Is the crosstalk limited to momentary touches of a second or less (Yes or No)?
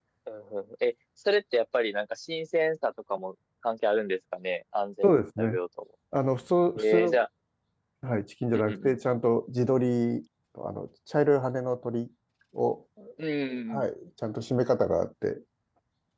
Yes